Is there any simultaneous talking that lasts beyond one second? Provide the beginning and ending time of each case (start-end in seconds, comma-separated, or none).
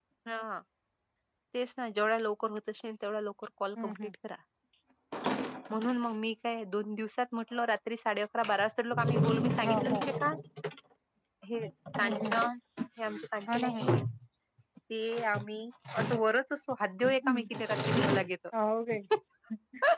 none